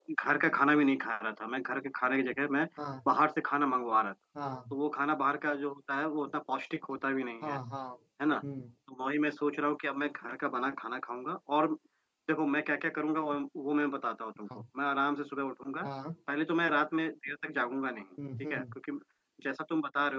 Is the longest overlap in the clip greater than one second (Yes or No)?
No